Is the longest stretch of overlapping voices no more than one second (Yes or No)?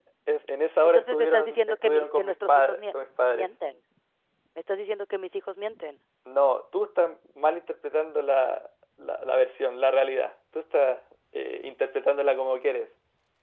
No